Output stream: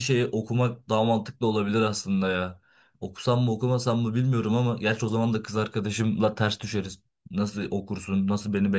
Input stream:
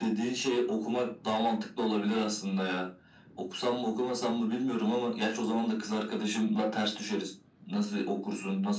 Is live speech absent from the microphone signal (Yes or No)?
Yes